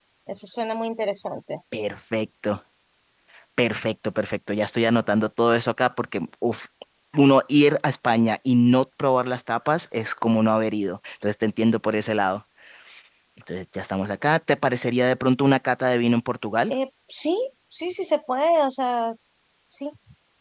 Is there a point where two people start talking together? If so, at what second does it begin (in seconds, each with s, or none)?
none